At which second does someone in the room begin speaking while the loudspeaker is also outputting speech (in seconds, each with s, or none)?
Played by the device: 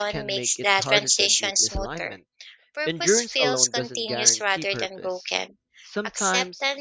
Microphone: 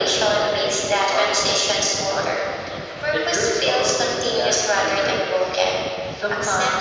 none